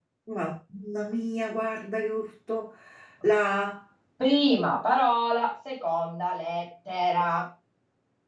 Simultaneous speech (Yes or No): No